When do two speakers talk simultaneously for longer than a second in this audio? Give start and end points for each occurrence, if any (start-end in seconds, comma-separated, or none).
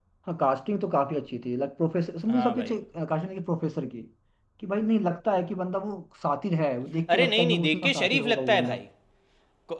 7.1-8.8